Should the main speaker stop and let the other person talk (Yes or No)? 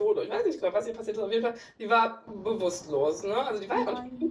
No